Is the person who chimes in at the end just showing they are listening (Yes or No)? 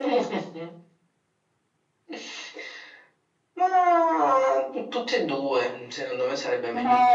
No